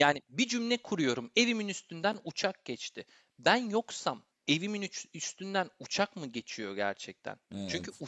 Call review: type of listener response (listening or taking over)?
listening